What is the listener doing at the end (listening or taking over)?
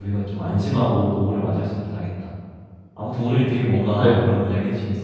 listening